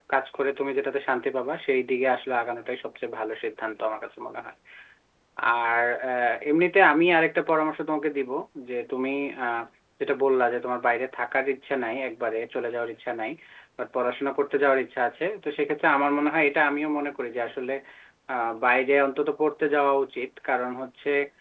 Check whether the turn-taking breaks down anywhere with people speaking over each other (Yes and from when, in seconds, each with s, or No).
No